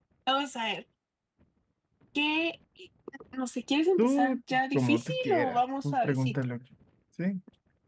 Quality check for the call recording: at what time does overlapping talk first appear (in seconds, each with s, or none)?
4.0 s